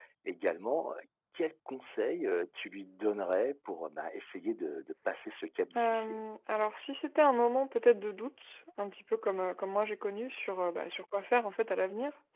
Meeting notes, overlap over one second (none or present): none